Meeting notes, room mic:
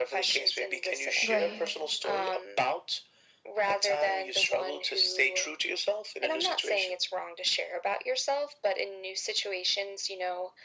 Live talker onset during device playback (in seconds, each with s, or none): 1.3 s